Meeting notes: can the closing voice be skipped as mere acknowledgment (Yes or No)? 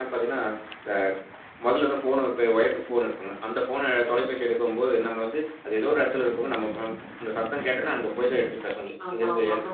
Yes